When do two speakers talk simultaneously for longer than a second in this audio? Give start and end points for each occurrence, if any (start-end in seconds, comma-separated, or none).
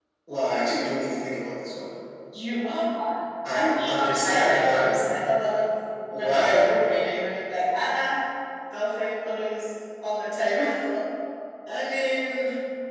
3.5-5.0